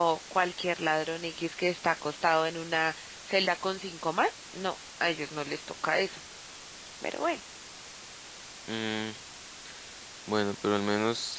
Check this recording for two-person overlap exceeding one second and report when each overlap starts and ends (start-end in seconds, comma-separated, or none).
none